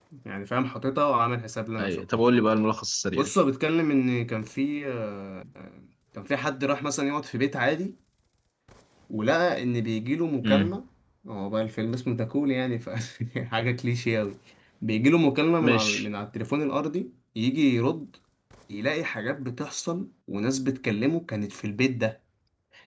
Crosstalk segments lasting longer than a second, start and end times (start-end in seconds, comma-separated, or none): none